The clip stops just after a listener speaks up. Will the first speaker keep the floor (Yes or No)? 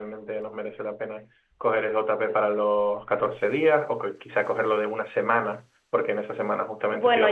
No